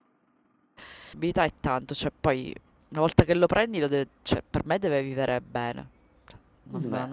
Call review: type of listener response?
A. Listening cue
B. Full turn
A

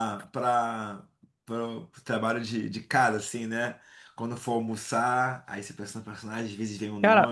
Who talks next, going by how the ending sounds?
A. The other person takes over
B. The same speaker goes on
A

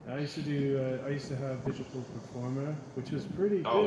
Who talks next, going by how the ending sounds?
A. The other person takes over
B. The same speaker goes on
B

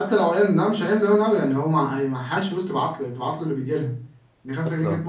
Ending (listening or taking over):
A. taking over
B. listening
B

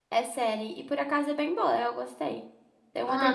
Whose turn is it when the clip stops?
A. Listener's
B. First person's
A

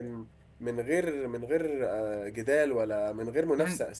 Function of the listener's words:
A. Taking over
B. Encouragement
A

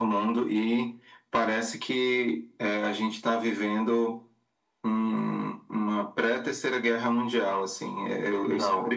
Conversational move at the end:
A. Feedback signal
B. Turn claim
A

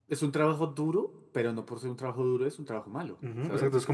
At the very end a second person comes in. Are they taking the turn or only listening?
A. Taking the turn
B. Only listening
A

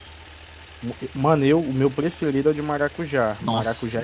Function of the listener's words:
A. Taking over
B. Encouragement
A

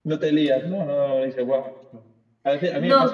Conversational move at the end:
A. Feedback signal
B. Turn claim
A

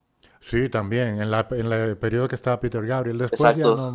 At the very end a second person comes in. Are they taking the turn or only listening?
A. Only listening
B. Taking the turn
B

